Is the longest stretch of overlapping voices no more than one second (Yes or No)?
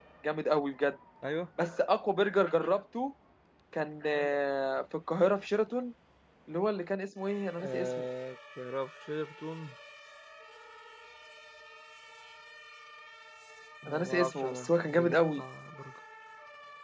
No